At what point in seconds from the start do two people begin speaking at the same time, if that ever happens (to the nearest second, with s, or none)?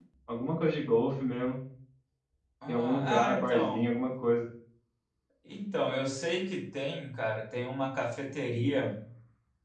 3 s